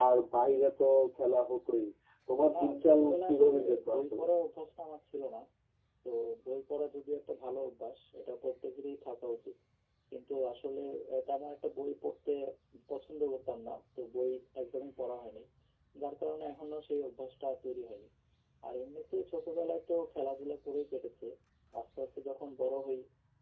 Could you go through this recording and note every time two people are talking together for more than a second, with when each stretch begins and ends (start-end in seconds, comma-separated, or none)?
2.5-4.2